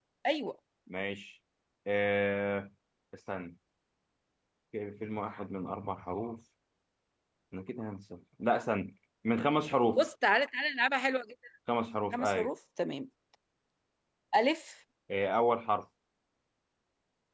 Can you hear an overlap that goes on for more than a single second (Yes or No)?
No